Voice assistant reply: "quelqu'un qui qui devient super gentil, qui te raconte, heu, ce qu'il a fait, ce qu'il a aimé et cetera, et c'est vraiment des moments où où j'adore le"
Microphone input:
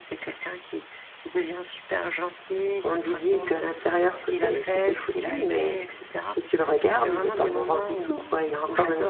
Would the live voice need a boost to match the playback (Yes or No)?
No